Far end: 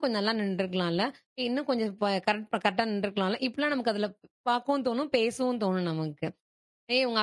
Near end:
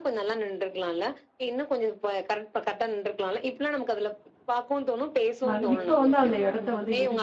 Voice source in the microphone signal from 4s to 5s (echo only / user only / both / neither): echo only